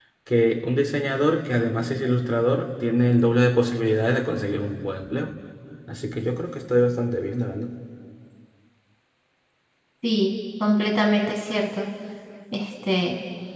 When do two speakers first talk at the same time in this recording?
none

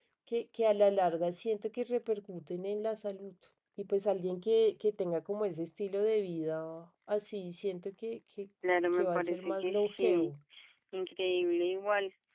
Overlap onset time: 8.9 s

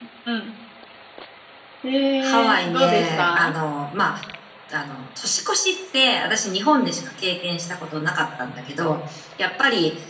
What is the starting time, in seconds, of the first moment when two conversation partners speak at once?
2.2 s

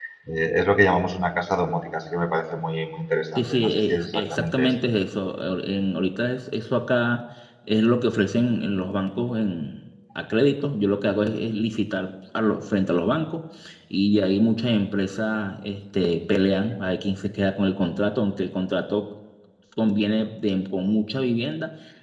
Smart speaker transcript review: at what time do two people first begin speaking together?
3.4 s

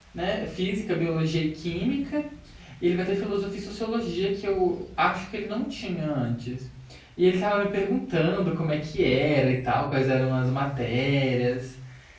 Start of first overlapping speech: none

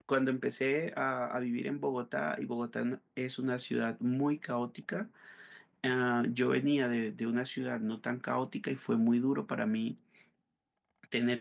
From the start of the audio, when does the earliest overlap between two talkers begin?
none

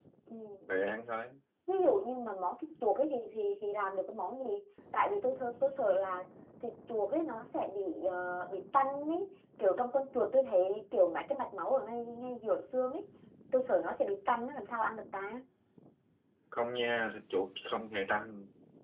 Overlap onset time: none

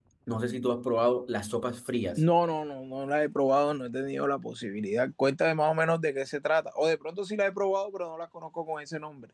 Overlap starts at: none

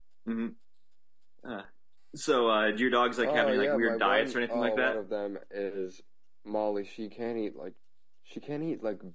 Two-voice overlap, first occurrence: 3.2 s

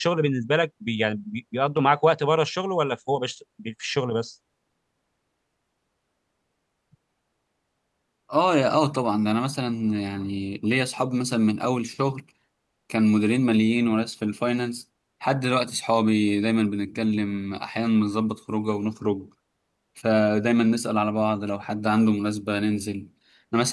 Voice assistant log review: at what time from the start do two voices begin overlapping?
none

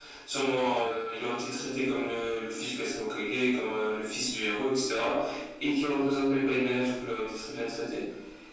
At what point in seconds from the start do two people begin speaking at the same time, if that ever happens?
none

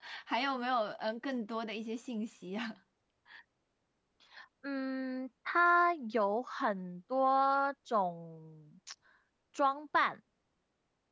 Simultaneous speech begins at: none

